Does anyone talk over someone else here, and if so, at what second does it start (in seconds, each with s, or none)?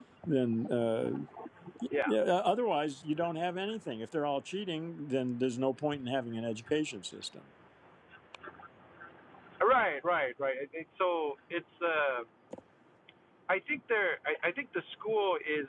none